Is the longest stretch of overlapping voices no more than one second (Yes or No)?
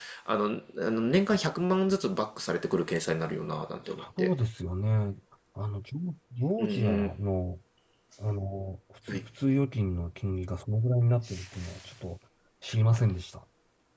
Yes